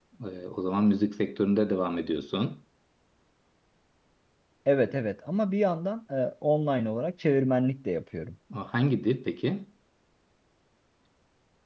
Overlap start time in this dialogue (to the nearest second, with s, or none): none